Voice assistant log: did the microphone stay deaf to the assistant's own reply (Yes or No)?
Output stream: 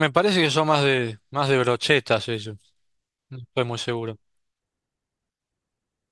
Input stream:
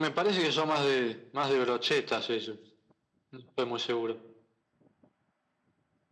No